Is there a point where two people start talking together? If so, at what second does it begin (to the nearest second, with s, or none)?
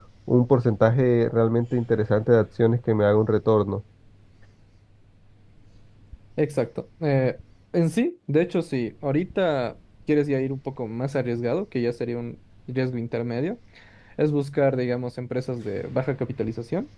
none